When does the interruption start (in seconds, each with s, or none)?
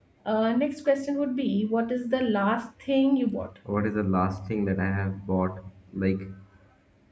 none